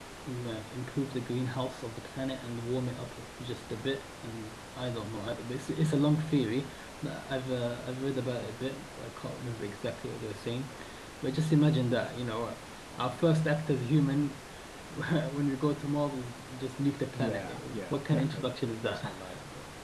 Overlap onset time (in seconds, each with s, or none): 17.1 s